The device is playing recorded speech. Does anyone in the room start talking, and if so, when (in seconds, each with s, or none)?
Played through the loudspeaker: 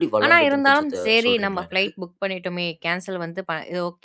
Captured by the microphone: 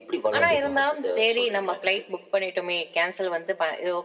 0.3 s